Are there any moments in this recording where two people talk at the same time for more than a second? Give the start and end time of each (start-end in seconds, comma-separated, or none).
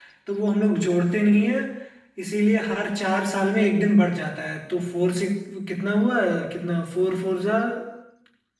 none